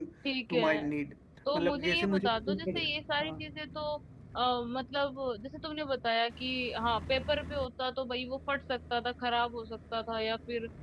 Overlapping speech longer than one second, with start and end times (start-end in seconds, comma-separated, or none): 1.6-2.8